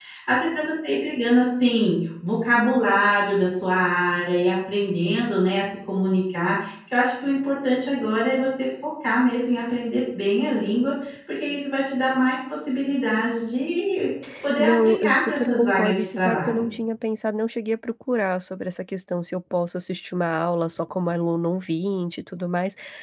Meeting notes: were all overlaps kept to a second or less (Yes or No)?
No